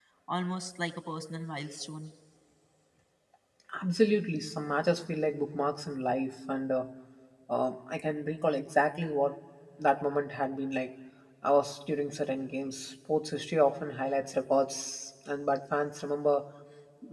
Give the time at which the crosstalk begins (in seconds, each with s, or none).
none